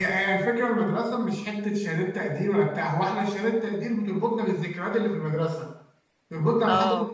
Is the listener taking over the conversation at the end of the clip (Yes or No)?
No